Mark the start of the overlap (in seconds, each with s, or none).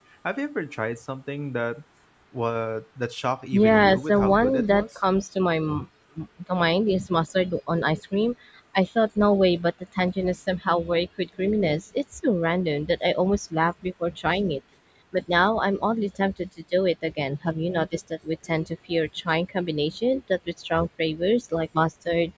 3.5 s